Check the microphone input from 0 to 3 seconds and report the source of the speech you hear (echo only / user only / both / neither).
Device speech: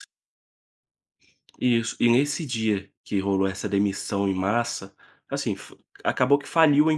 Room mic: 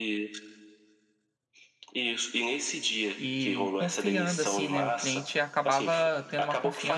echo only